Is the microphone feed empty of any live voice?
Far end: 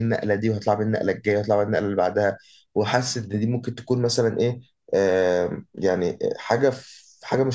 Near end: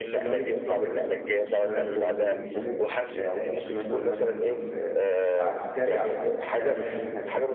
No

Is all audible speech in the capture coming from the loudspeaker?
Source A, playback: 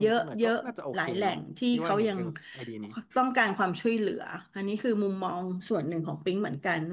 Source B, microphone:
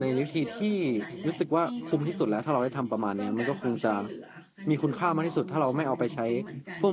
No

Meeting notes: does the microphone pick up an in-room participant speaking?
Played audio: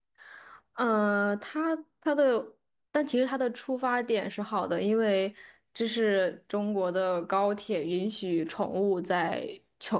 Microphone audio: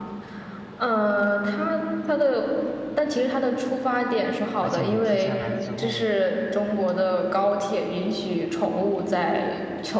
Yes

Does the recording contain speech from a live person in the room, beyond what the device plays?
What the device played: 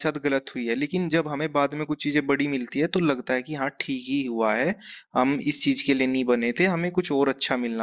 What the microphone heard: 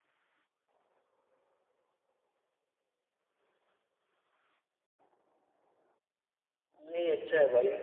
Yes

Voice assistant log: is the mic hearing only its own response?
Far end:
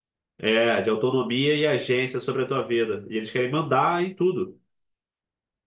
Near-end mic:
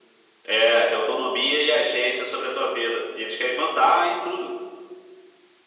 Yes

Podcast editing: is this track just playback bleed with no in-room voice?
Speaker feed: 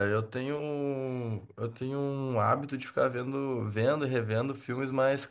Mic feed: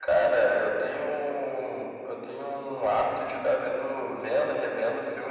Yes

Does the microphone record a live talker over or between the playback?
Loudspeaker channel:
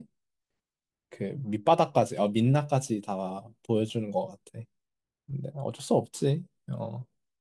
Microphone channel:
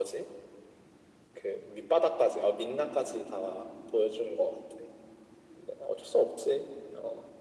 No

